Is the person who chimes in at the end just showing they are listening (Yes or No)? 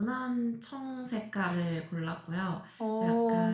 Yes